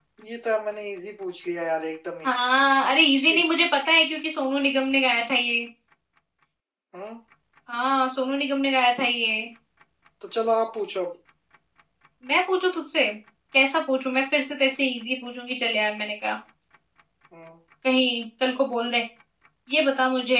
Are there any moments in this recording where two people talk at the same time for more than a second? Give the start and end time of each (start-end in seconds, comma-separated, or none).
none